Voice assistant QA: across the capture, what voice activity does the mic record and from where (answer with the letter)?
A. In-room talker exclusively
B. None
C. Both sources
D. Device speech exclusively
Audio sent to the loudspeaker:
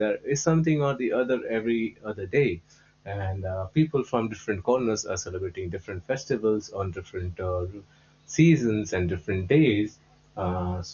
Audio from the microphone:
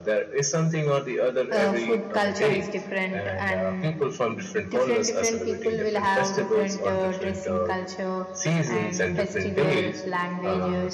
C